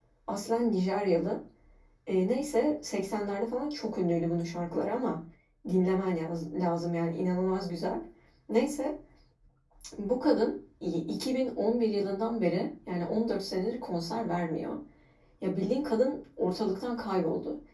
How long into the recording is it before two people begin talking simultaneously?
none

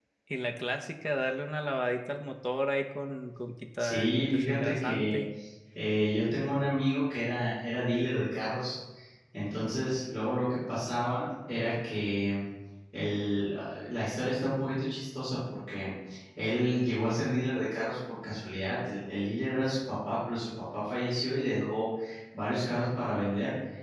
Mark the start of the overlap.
3.8 s

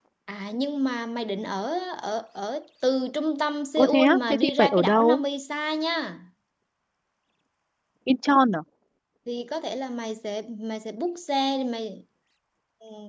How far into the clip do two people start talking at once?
3.8 s

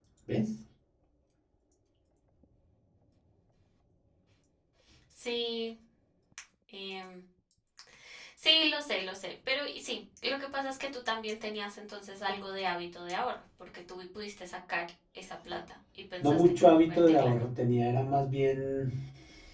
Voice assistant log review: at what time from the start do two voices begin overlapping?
16.2 s

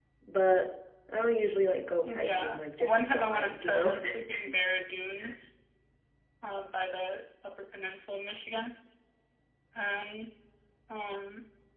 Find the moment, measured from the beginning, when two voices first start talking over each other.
2.0 s

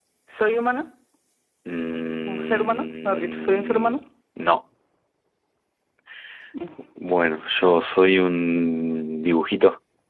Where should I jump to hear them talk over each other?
2.2 s

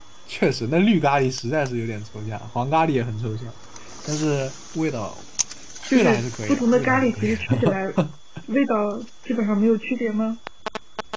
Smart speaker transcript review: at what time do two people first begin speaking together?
5.9 s

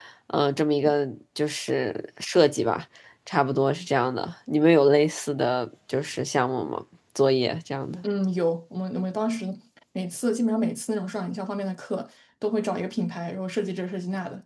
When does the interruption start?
none

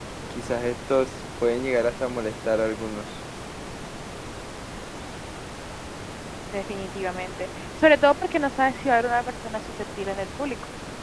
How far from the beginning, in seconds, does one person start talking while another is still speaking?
none

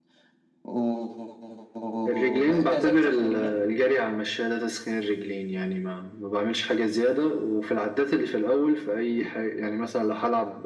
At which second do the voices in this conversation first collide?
2.1 s

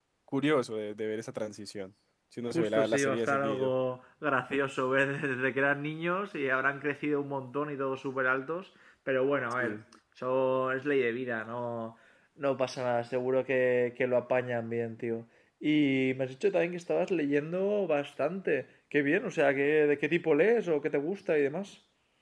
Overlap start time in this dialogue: 2.5 s

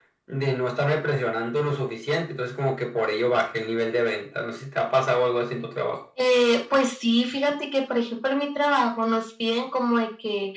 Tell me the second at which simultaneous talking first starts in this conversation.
none

